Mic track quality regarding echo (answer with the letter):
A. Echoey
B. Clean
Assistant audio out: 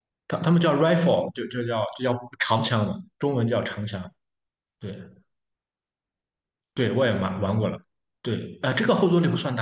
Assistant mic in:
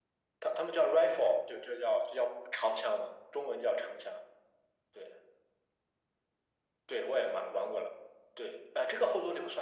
A